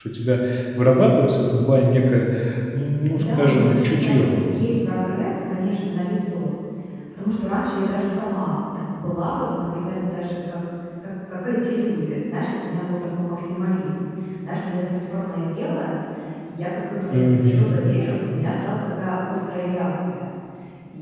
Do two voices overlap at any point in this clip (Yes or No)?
Yes